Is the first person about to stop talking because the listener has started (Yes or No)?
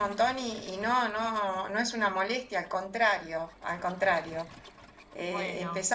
No